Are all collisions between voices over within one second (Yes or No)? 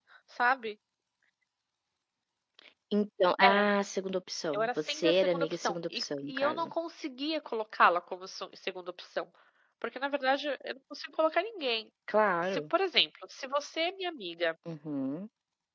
No